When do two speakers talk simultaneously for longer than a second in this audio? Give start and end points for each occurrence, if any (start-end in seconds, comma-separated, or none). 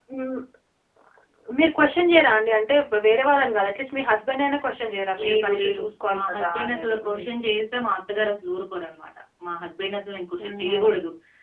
5.2-7.2